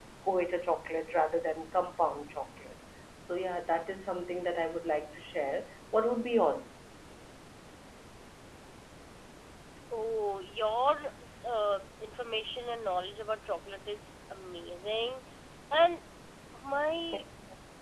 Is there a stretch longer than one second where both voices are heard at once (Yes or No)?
No